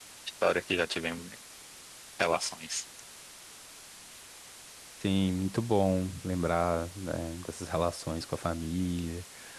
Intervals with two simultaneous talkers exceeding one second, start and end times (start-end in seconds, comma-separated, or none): none